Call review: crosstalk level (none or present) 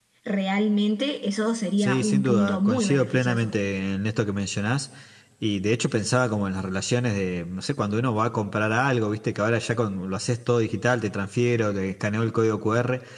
present